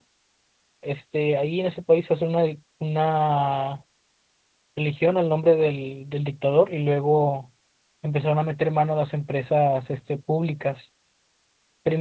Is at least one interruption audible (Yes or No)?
No